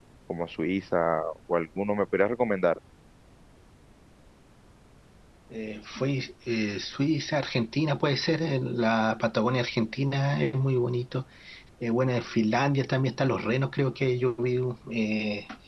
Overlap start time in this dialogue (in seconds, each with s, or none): none